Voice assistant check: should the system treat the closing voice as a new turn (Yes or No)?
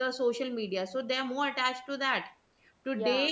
No